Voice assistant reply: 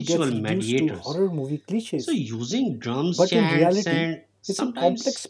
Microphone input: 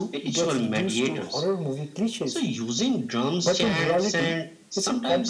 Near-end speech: none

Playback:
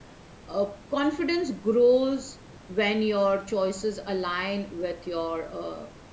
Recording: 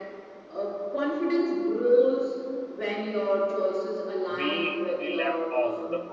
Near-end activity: present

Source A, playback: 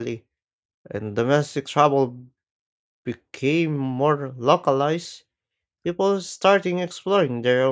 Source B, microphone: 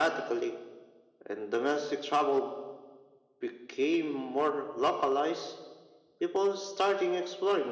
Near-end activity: none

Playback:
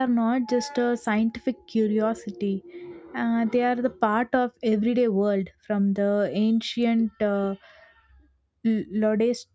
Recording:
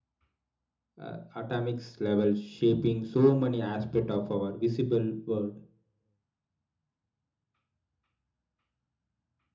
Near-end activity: present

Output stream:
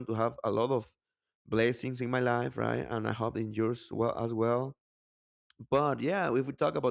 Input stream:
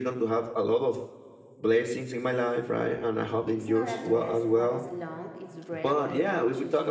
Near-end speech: present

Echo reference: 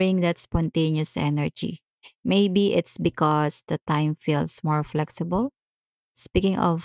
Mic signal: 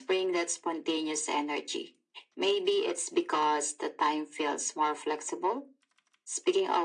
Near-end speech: none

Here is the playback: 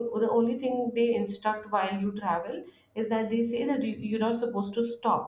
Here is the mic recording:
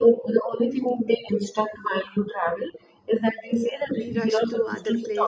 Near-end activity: present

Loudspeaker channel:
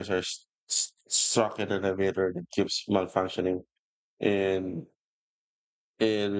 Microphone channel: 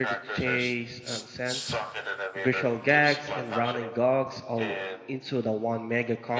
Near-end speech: present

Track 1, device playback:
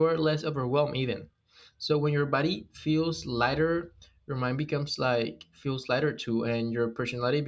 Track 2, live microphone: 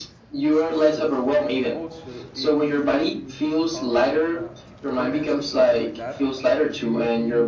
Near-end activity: present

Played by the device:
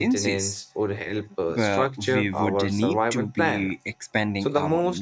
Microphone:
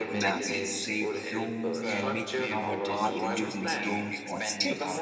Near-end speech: present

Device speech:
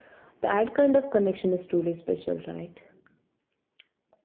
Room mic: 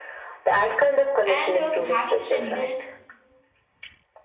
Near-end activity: present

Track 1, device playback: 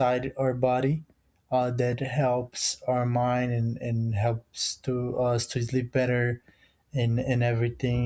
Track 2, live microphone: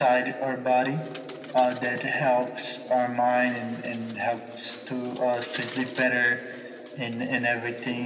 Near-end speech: none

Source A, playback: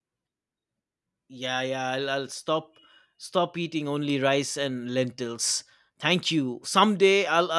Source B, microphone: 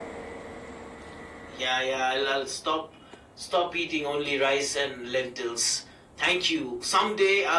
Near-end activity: none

